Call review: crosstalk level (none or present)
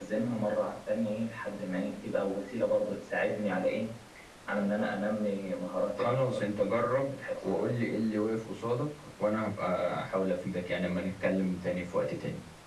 present